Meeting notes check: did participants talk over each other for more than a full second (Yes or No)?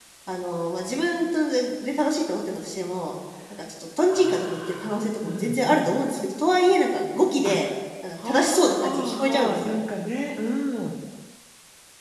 Yes